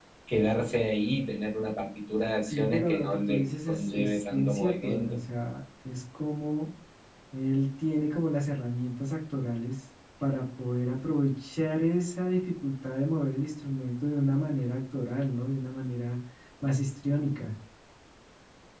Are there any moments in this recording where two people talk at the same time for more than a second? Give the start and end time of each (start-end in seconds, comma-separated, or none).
2.4-5.2